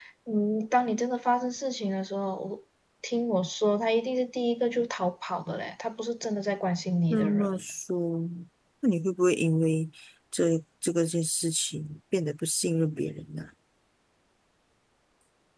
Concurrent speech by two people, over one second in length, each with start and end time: none

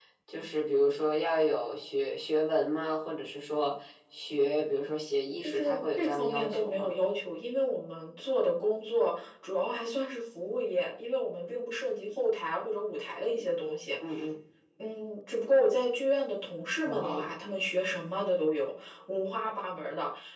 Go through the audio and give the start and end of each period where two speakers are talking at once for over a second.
5.4-6.9

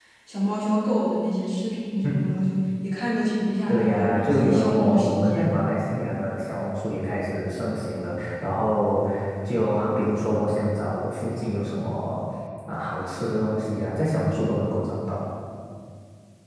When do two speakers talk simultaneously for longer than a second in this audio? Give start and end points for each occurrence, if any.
3.7-5.5

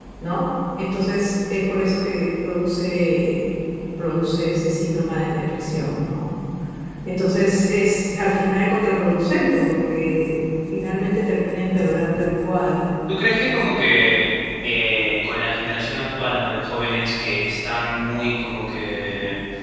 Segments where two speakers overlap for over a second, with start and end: none

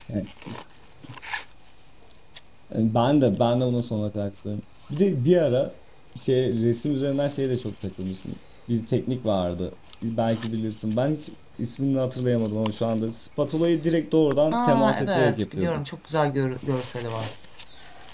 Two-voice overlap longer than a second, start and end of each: 14.5-15.8

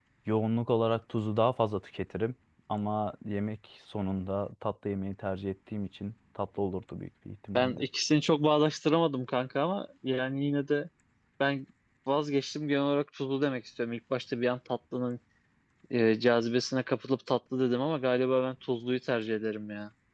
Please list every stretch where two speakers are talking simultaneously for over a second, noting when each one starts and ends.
none

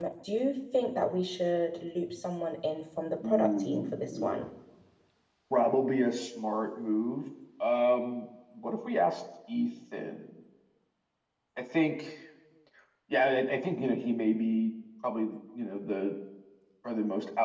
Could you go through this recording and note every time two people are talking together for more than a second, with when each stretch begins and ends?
3.2-4.4

